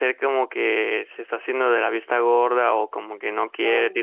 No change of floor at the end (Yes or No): Yes